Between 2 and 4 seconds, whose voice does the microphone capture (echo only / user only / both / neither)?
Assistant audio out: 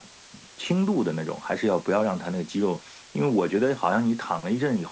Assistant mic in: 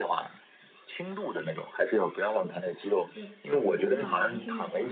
both